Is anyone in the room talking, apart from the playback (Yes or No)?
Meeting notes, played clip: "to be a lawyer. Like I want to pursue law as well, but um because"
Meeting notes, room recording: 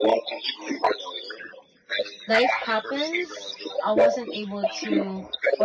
Yes